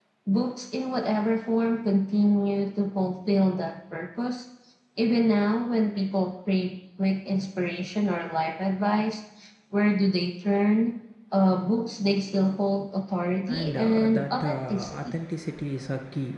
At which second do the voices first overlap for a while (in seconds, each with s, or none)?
13.5 s